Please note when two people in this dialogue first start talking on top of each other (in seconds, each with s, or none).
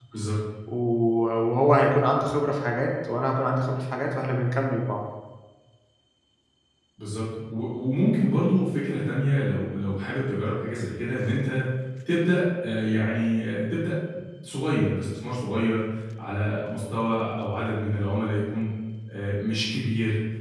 none